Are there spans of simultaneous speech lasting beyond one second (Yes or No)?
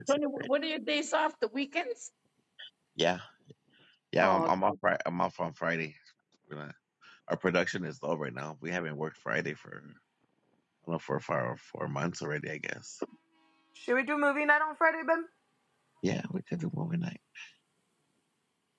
No